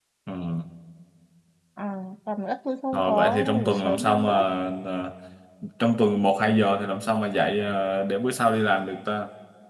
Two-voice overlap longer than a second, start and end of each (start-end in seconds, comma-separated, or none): 2.9-4.3